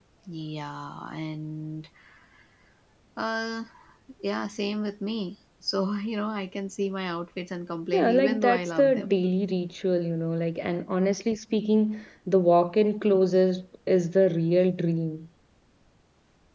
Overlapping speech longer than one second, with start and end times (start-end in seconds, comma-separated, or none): 7.9-9.1